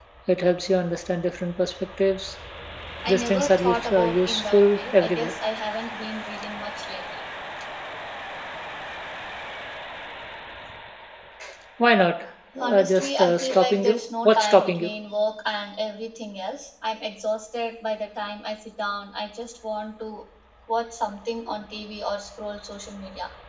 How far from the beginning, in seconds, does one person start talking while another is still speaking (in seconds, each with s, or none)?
3.1 s